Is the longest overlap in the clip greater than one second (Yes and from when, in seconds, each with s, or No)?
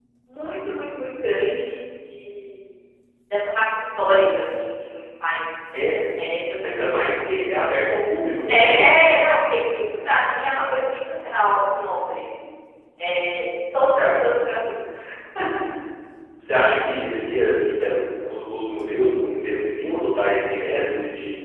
No